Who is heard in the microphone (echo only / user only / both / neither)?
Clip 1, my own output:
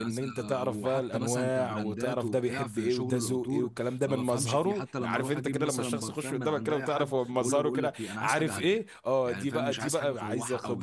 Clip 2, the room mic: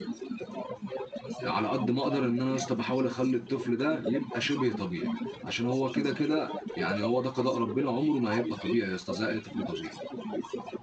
both